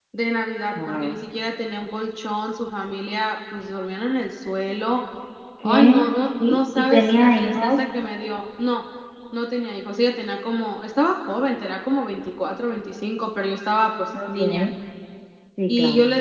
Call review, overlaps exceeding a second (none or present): present